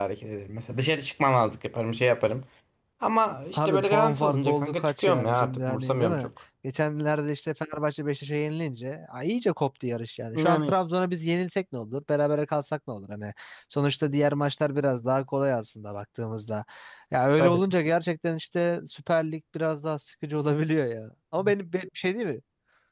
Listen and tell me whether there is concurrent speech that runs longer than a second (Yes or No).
Yes